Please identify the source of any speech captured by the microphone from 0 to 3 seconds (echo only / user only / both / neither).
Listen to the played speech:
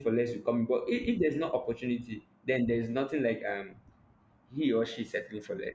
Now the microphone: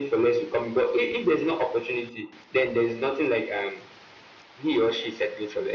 echo only